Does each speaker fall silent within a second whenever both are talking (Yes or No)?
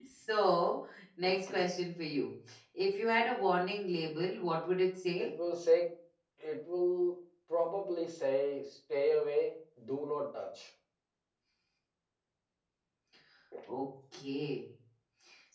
Yes